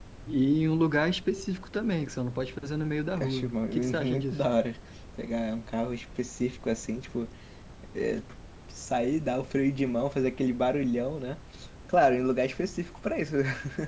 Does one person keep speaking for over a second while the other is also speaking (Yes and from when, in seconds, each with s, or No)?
Yes, from 3.1 s